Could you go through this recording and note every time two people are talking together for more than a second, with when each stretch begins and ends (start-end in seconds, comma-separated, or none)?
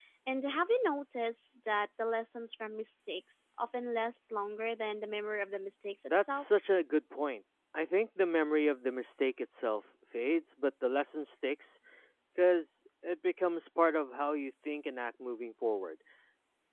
none